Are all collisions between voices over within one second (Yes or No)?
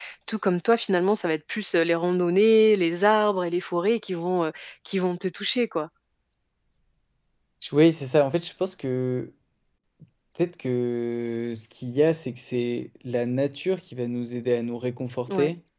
Yes